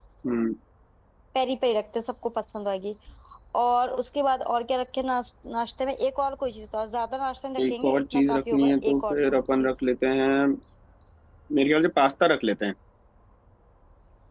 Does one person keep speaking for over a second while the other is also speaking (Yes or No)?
Yes